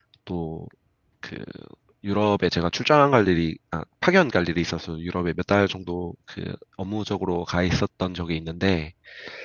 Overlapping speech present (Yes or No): No